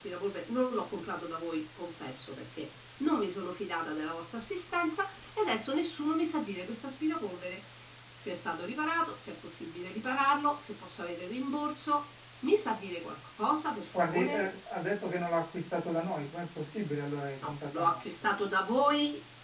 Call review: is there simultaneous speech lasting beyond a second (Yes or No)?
No